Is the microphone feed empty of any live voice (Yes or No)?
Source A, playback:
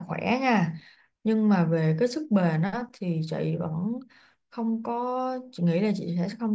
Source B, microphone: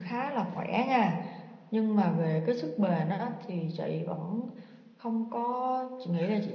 Yes